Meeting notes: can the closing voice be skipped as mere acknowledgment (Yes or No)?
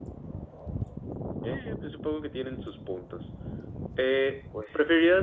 Yes